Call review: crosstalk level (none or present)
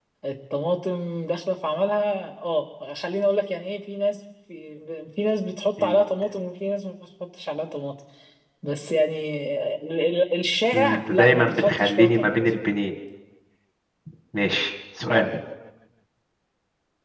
present